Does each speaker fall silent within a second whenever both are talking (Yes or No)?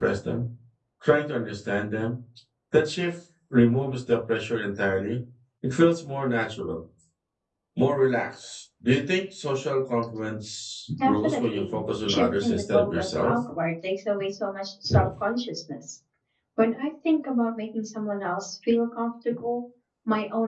No